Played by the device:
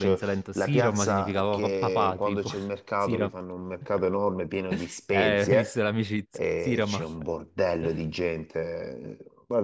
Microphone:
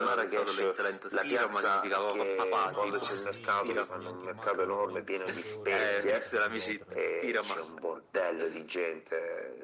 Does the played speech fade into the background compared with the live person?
No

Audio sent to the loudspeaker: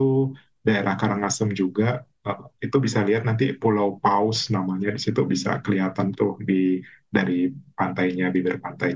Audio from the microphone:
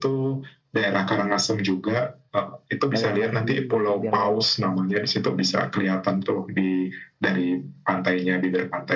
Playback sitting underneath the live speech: No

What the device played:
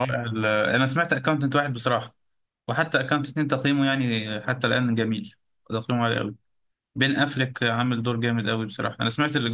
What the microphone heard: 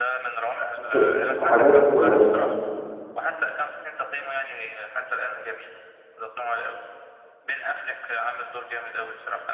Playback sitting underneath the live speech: Yes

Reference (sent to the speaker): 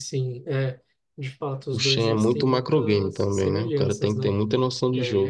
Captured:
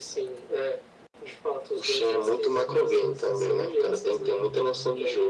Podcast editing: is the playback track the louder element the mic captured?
Yes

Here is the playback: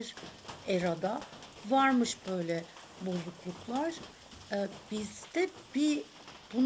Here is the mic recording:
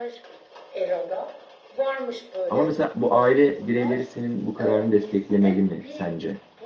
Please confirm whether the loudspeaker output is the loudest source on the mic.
No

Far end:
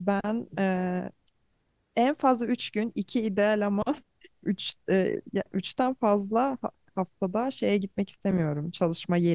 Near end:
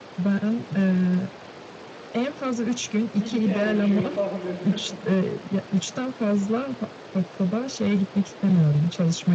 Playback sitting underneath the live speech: No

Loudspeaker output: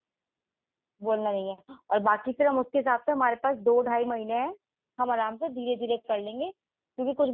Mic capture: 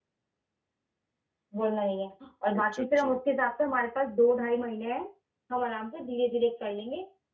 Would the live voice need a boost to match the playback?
Yes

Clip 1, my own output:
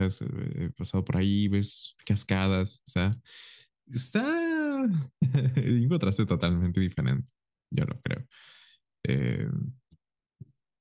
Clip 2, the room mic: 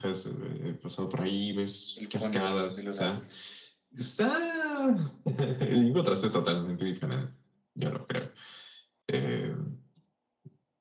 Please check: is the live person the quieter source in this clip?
Yes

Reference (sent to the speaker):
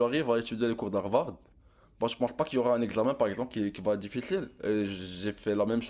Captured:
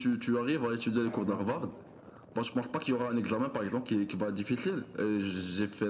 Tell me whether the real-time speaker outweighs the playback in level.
No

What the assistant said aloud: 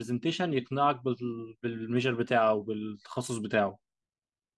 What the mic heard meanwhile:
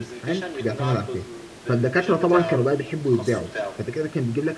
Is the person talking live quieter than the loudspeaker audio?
No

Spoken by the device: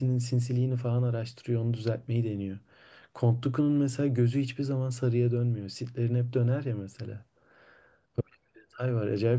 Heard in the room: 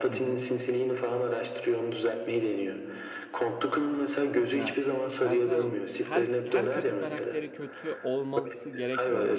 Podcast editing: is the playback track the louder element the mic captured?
Yes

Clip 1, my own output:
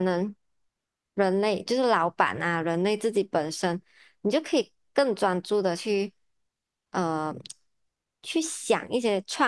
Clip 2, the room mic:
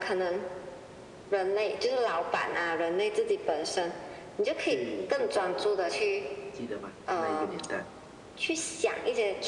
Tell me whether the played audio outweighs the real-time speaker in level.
Yes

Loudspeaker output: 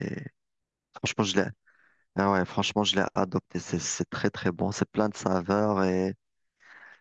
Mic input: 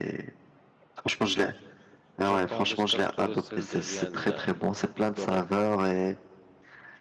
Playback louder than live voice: Yes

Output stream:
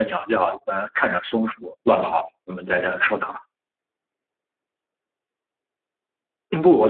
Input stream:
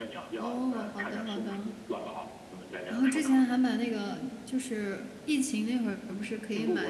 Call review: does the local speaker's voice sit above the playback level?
Yes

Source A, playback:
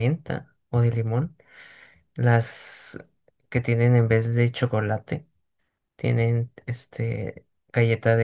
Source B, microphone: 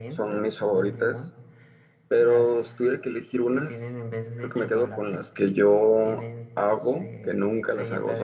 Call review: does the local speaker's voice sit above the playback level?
Yes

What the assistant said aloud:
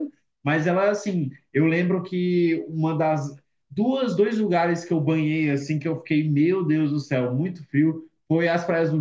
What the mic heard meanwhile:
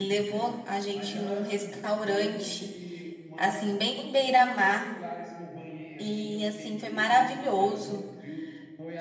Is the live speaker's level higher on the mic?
Yes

